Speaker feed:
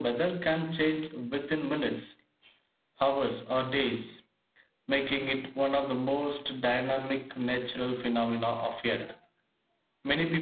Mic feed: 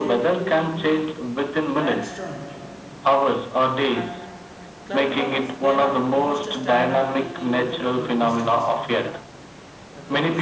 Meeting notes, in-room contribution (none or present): present